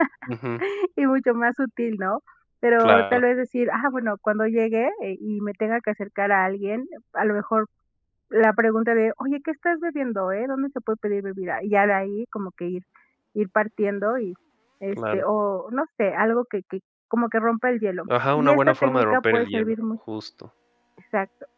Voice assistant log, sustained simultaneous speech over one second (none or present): present